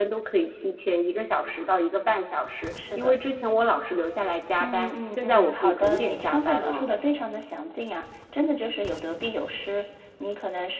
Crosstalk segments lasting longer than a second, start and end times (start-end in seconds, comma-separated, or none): 4.6-6.9